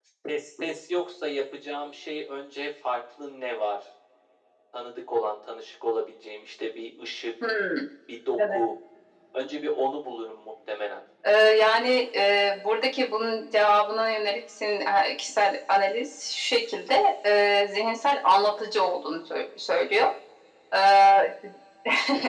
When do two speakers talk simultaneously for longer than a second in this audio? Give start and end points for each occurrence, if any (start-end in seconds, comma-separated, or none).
none